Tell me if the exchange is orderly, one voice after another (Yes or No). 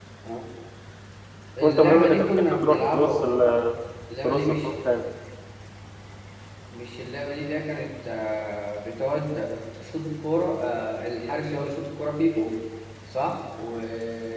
No